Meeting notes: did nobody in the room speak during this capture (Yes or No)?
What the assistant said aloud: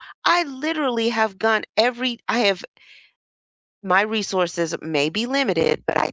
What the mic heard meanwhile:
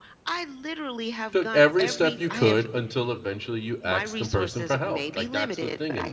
No